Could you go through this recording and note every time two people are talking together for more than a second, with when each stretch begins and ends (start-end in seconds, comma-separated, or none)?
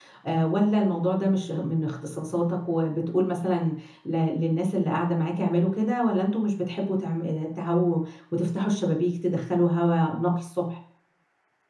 none